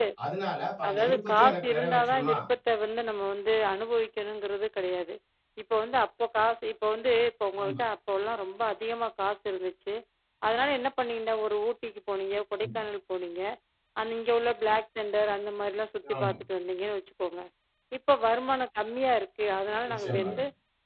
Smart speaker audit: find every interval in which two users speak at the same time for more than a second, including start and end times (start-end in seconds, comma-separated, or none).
0.9-2.4